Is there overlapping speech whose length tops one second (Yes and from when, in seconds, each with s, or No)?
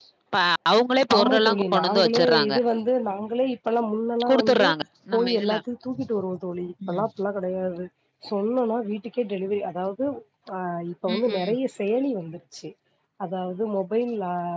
Yes, from 1.2 s